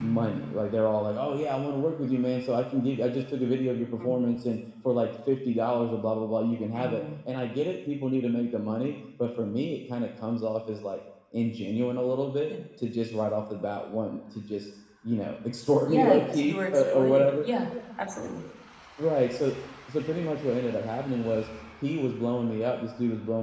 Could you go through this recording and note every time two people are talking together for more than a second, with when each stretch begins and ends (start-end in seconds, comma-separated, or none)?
15.8-17.4